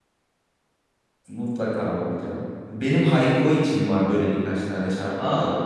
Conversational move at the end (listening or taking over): listening